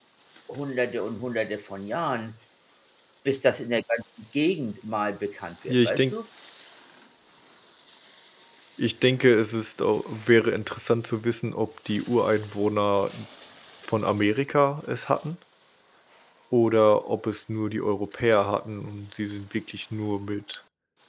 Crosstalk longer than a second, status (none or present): none